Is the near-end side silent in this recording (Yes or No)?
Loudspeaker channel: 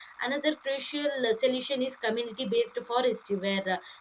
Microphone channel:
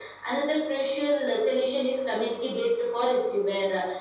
Yes